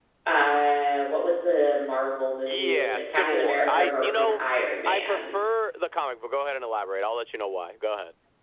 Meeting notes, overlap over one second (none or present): present